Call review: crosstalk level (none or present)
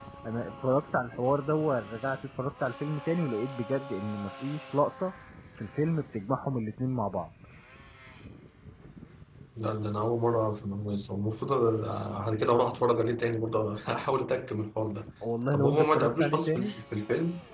present